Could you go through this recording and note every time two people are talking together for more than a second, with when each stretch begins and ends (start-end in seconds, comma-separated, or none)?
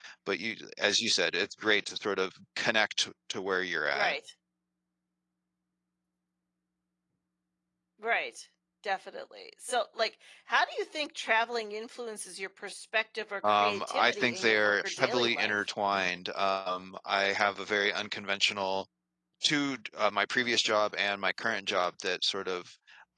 13.6-15.5